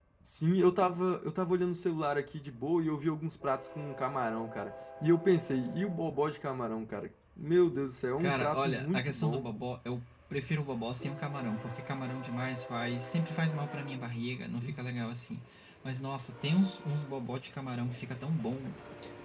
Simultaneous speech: Yes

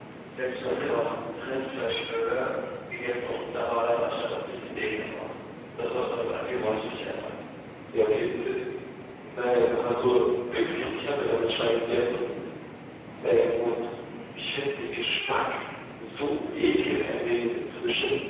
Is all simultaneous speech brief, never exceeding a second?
Yes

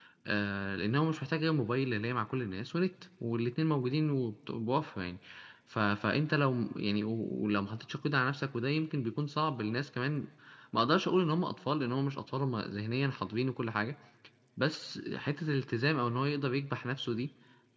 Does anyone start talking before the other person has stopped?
No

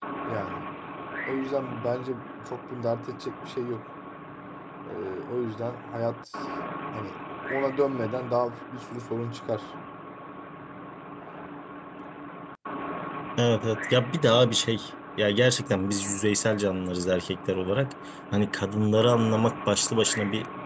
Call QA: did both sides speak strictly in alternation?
Yes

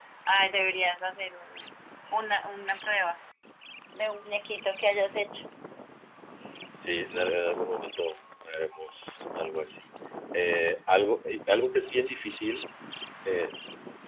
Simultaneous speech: No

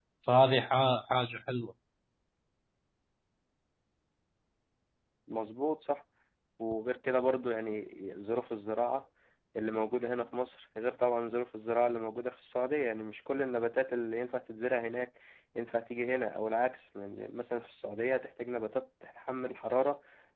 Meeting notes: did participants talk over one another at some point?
No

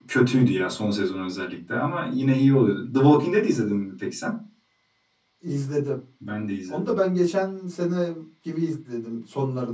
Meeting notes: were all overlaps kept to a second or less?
Yes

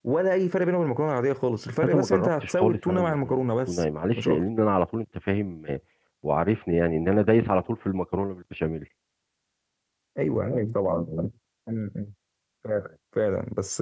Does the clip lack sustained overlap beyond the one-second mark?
No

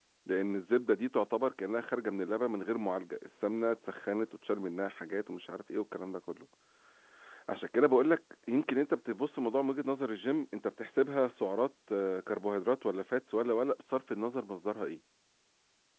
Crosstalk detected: No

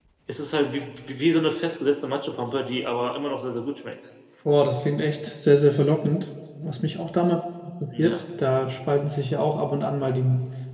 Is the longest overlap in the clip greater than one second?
No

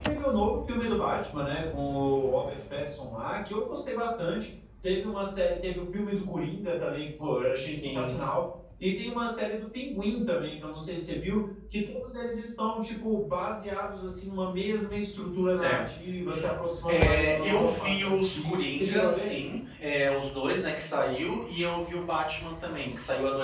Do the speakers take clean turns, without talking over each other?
No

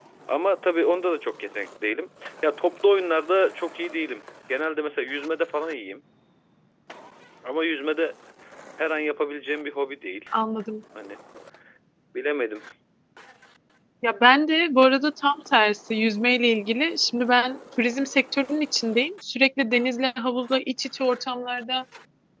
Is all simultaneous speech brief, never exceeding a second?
Yes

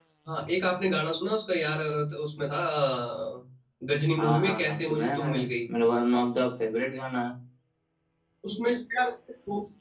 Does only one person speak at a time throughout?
No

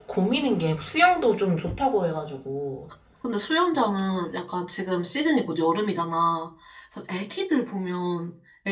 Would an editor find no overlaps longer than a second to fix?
Yes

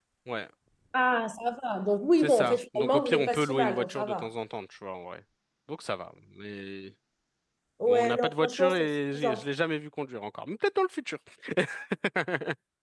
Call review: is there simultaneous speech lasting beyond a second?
Yes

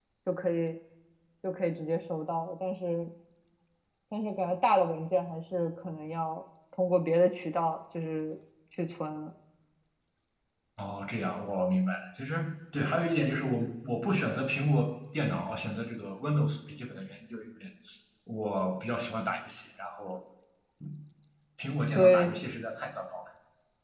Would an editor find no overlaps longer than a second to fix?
Yes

